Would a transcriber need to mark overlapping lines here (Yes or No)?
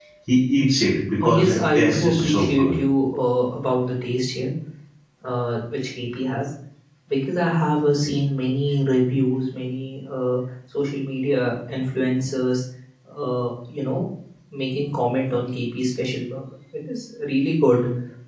Yes